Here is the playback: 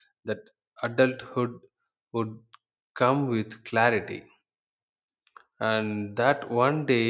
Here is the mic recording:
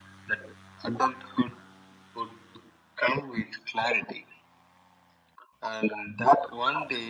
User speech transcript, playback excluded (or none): none